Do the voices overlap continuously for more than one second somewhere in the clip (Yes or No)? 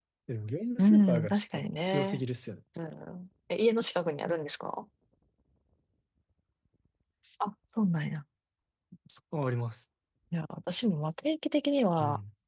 Yes